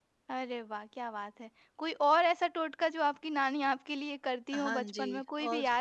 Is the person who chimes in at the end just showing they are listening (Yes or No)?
No